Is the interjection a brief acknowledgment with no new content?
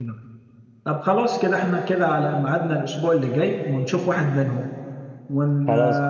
Yes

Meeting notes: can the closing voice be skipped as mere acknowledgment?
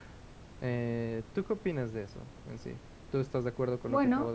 No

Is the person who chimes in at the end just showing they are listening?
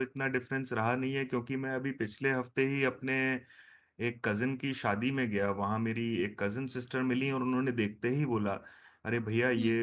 Yes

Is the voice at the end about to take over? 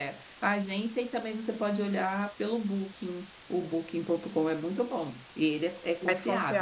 No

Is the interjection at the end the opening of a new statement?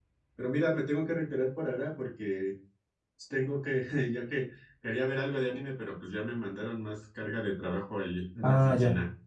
Yes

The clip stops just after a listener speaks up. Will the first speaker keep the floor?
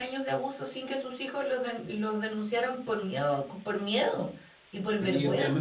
No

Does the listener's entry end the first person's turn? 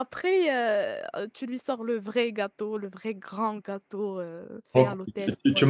Yes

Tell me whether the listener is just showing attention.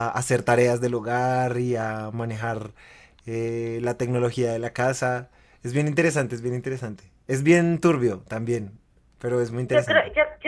No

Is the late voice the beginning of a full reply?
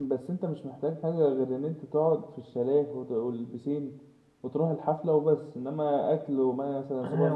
Yes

